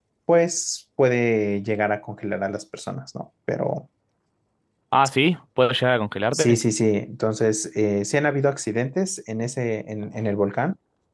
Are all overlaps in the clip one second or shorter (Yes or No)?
Yes